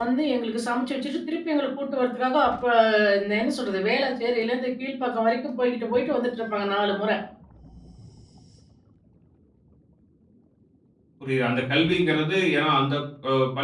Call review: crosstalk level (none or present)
none